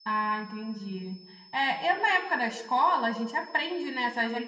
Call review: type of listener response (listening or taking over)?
listening